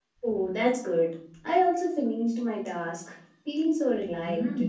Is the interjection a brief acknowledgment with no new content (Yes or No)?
No